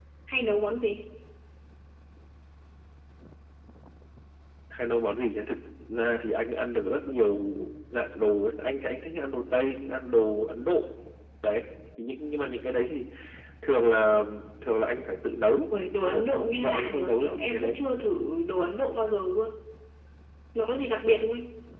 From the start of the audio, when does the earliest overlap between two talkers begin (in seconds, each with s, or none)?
16.0 s